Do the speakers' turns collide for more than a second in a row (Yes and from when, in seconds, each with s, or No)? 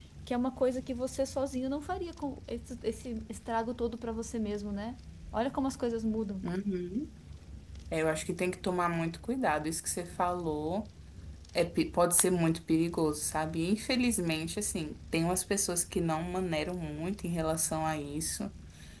No